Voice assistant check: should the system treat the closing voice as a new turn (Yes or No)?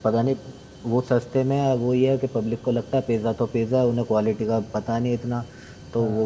No